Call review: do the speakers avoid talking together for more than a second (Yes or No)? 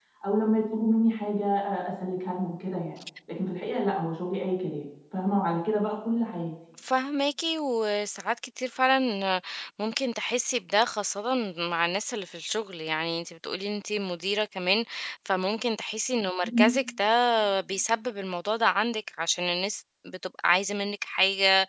Yes